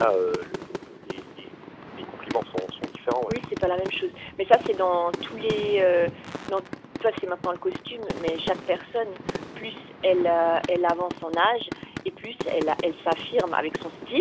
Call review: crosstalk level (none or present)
none